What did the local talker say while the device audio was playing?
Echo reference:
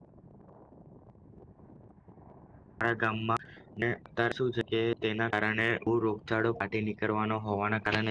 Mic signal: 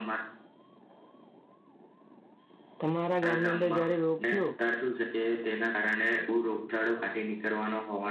તમારા ગામની અંદર જયારે રોગ થયો

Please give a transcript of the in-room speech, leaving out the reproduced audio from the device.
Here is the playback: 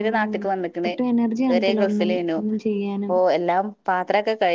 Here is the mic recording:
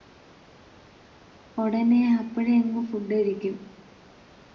ഉടനെ അപ്പഴേ അങ് ഫുഡ്കഴിക്കും.

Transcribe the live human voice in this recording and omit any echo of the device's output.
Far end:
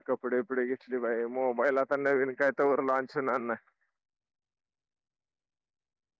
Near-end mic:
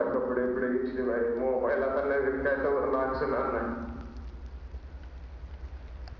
none

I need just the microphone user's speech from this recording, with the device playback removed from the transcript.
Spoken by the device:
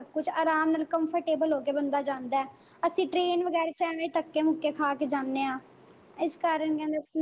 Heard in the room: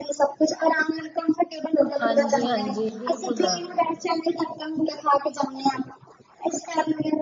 ਹਾਂਜੀ ਹਾਂਜੀ ਬਿਲਕੁਲ

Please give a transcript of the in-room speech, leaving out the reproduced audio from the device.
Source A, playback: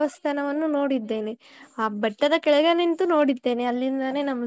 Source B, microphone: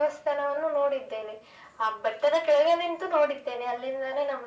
none

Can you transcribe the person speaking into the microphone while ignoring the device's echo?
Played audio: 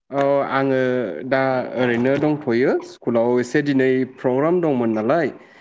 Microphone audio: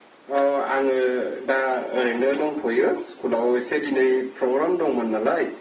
none

